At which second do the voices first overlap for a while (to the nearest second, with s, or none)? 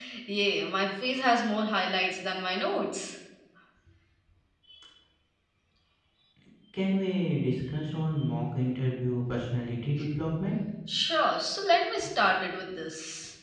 none